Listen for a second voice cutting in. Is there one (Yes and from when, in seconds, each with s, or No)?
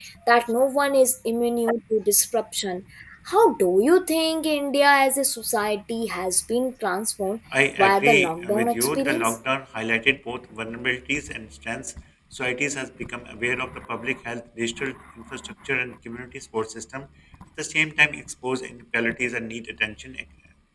Yes, from 7.8 s